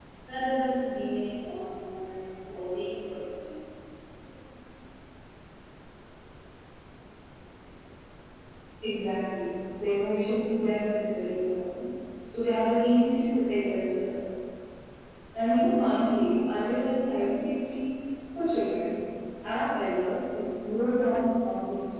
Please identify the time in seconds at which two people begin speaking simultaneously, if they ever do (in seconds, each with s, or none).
none